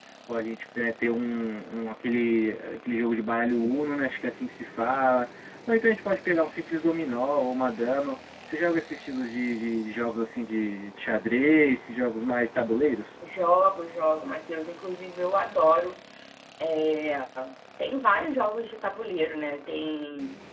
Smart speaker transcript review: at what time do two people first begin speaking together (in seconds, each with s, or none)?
none